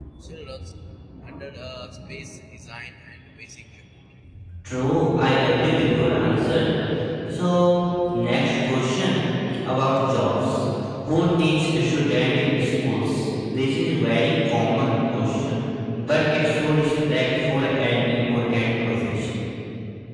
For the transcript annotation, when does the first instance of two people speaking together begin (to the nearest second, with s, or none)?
none